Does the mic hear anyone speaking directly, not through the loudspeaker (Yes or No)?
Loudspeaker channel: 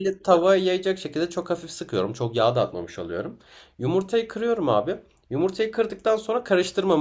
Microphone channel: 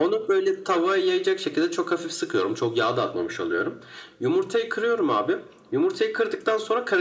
No